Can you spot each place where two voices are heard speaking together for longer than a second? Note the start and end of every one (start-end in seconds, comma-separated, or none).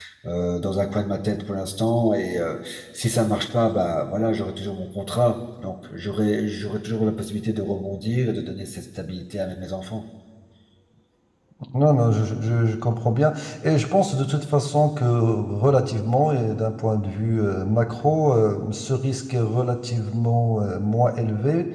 none